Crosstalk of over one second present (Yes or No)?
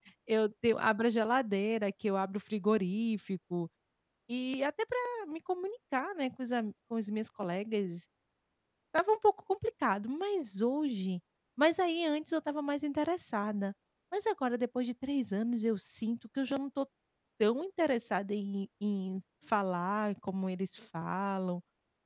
No